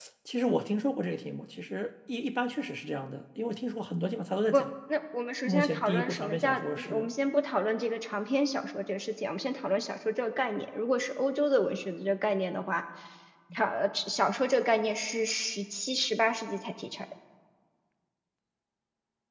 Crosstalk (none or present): present